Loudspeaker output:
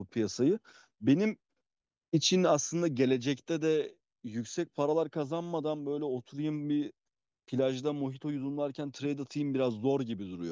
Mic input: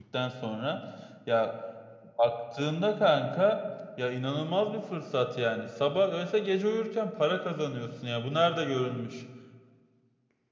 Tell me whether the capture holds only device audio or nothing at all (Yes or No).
No